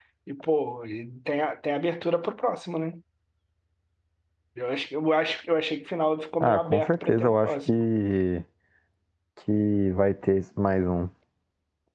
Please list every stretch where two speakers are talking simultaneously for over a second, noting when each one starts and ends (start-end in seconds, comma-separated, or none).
6.4-7.8